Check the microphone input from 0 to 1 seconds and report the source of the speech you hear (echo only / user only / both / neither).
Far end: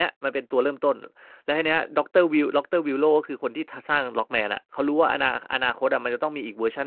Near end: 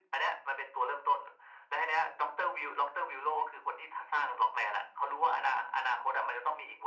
echo only